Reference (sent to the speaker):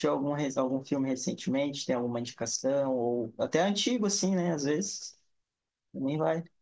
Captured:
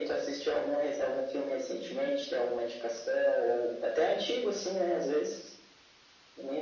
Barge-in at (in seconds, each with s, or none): none